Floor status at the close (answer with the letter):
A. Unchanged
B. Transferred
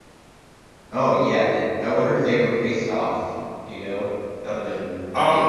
B